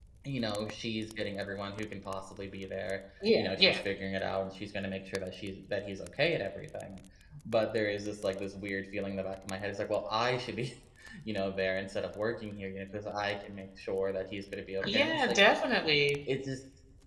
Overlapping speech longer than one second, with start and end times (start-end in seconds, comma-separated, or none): none